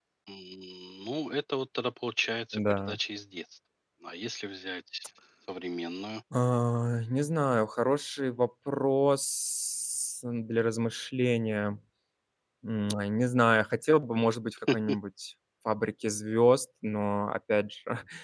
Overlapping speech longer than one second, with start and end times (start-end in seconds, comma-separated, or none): none